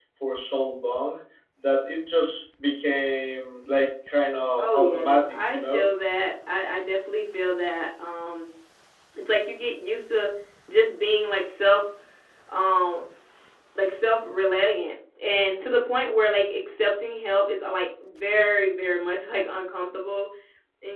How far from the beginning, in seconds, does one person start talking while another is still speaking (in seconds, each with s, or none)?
4.6 s